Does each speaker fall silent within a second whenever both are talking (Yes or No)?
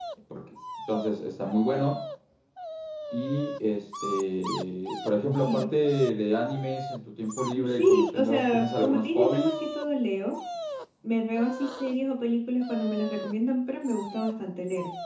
No